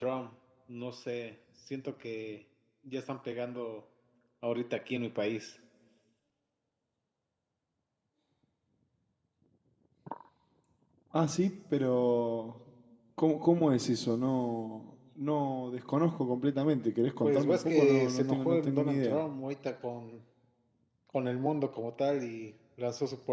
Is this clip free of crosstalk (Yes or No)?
No